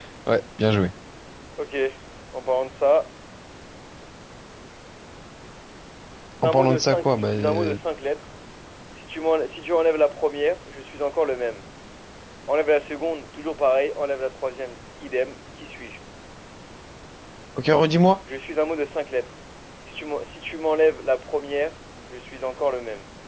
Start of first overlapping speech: 6 s

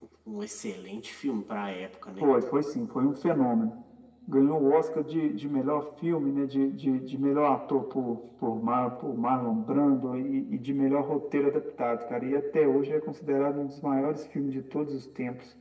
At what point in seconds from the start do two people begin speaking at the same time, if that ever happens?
none

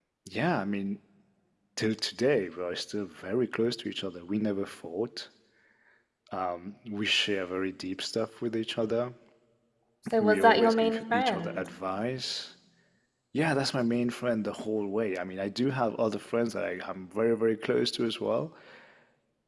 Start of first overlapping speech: 10 s

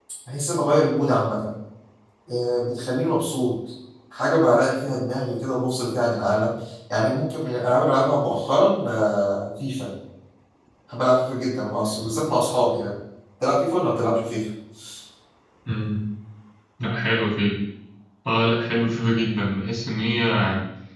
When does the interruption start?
none

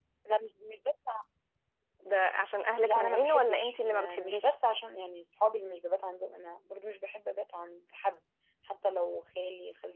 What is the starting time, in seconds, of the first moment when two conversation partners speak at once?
3 s

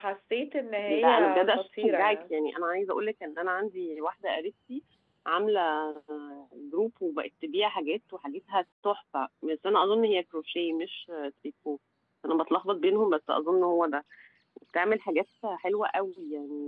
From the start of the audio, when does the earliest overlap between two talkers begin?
1 s

